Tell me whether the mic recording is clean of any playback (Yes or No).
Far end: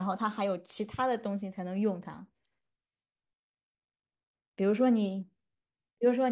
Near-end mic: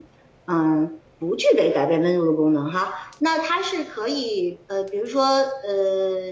Yes